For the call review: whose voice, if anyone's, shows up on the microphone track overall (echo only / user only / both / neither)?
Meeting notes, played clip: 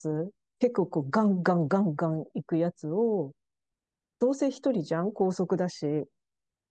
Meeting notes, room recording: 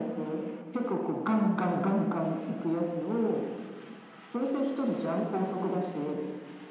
echo only